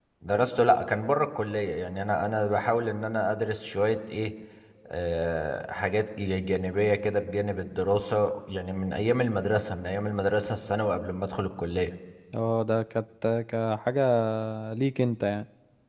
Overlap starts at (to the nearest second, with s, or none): none